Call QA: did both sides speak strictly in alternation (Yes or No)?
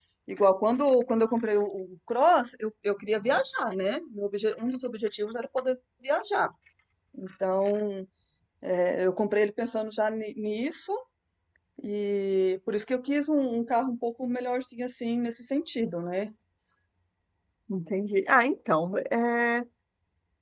Yes